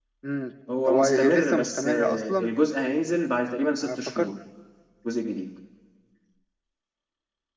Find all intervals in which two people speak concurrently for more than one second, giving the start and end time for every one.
0.9-2.5

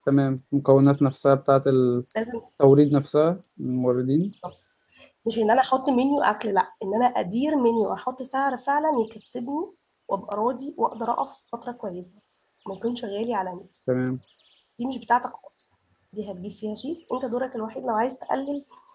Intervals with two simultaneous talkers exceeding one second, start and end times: none

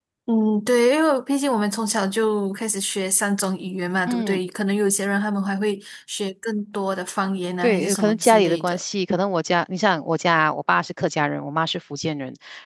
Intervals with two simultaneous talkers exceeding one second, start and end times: 7.6-8.8

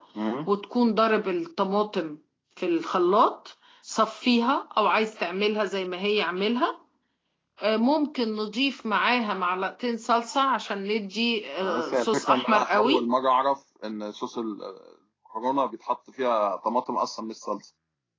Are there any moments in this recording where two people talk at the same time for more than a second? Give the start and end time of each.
11.6-13.1

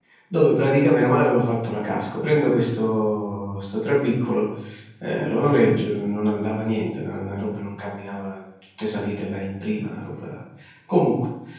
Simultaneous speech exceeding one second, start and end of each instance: none

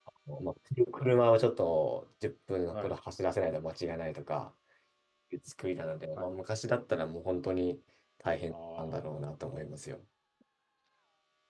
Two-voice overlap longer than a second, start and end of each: 8.5-9.8

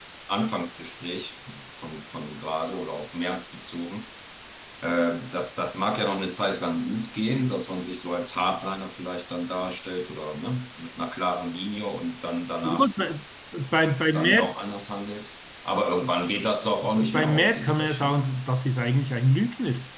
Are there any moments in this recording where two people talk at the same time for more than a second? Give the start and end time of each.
16.8-18.2

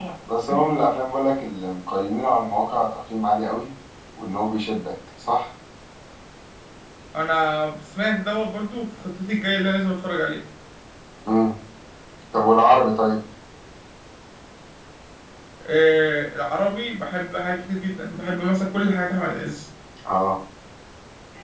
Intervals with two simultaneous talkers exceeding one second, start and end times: none

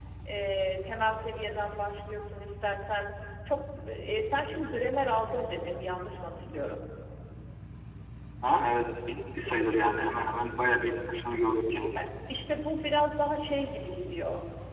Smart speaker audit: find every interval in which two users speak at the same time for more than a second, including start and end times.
none

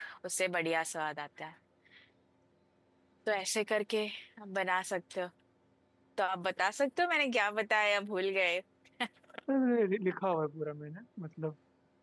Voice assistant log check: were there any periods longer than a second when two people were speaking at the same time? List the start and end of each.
none

